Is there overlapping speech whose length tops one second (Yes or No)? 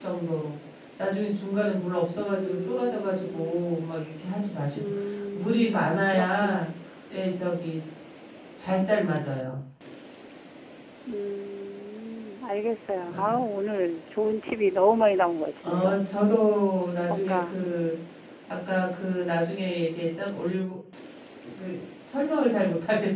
Yes